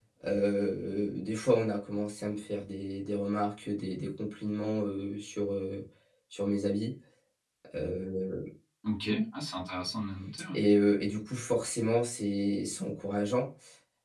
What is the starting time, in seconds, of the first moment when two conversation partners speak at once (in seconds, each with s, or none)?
none